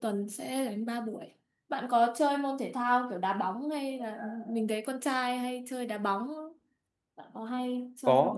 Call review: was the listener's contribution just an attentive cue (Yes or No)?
No